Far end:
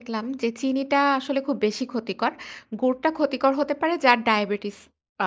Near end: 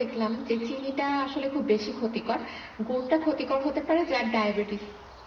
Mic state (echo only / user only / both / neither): echo only